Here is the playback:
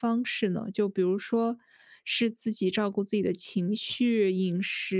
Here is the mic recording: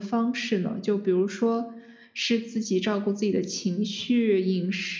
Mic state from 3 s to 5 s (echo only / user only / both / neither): echo only